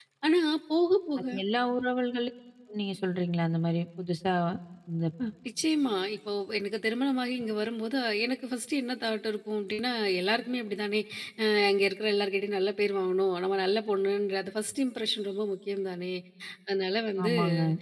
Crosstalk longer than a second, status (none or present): none